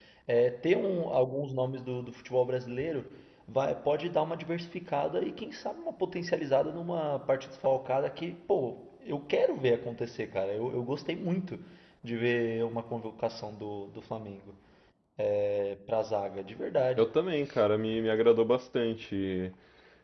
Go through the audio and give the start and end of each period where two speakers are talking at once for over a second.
none

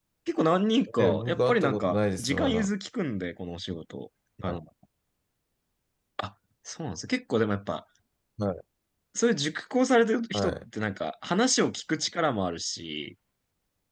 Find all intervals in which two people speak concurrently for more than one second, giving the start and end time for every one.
1.0-2.7

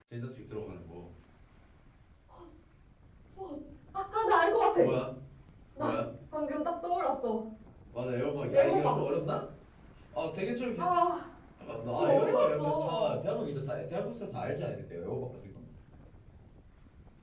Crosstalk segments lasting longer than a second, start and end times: 12.0-13.2

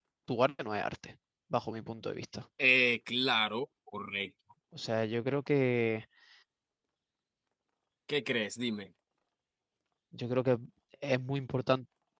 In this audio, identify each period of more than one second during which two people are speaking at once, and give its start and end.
none

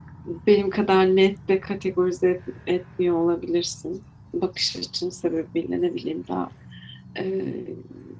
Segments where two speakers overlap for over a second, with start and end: none

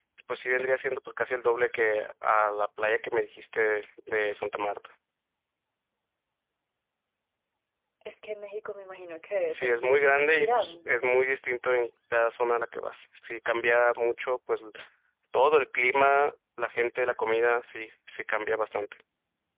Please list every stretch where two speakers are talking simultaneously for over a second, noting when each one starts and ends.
9.5-11.1

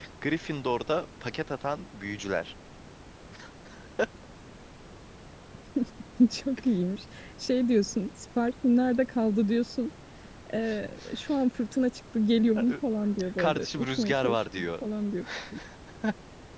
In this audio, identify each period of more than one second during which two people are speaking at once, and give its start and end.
13.4-14.7

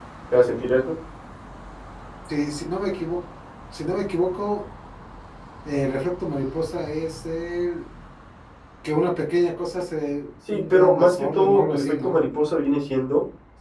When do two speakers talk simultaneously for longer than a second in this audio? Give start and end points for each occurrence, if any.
10.5-12.2

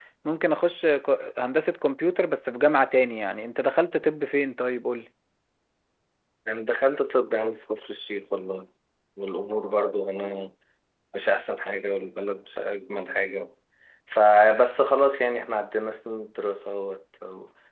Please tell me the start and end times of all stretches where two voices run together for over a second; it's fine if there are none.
none

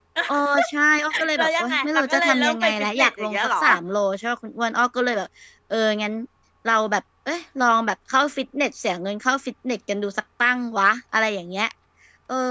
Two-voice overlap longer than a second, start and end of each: 1.4-3.6

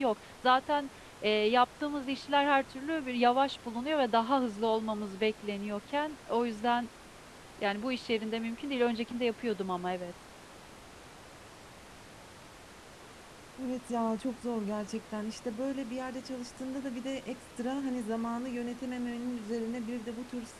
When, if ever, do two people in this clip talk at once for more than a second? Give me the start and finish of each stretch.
none

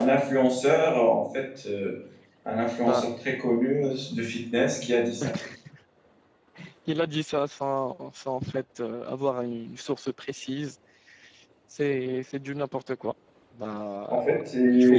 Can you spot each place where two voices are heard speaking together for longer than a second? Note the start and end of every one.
none

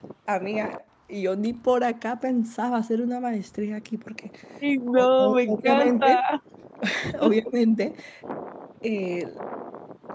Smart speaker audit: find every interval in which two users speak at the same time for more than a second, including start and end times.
4.9-6.2

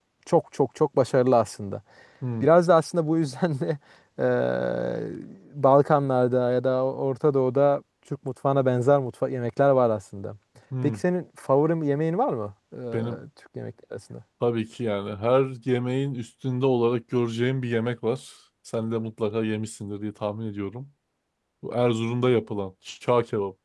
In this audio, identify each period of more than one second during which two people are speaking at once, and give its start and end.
none

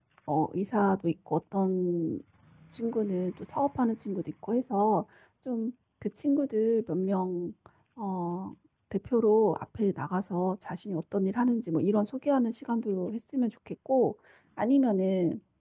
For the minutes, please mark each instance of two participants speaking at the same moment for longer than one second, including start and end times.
none

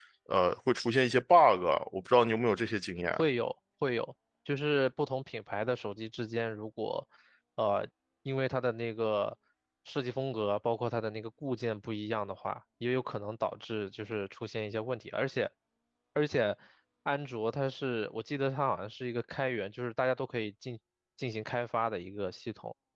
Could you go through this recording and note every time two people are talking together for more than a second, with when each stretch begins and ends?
none

